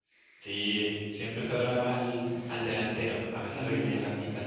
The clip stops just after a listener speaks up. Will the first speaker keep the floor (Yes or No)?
Yes